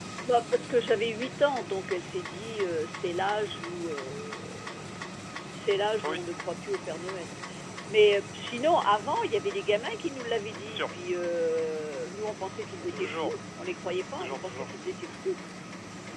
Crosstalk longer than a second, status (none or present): none